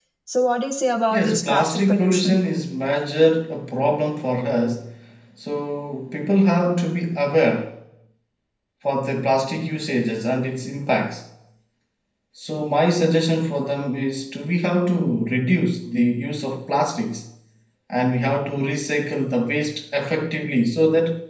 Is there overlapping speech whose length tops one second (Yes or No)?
Yes